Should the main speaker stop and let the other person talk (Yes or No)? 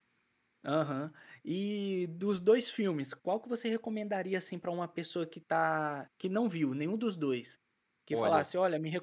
No